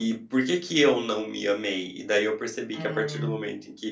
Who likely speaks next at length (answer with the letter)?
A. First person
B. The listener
A